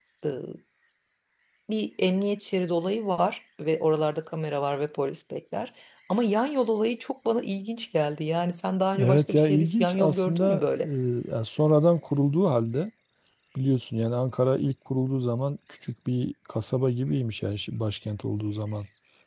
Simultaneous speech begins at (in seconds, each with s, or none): 8.9 s